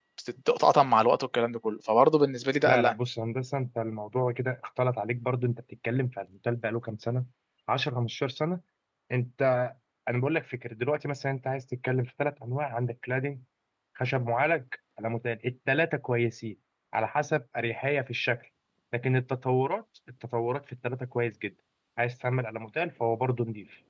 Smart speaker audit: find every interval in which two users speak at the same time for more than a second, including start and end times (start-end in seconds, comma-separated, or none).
none